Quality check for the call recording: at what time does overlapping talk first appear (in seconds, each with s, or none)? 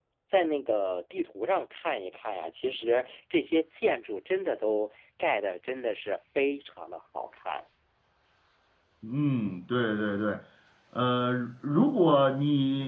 none